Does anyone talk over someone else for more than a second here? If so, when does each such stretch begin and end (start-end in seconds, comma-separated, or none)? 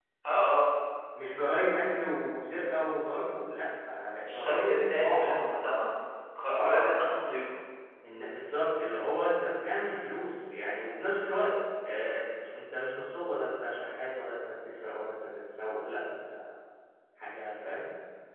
4.2-5.6